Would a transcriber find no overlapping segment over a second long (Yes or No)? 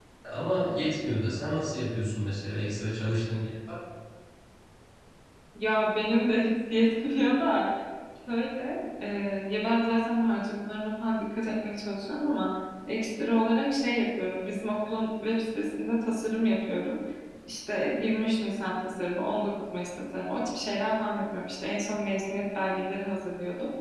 Yes